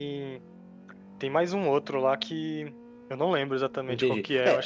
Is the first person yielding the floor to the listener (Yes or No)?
Yes